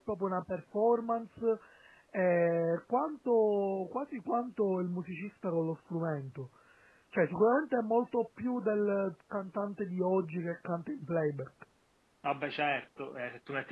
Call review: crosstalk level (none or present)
none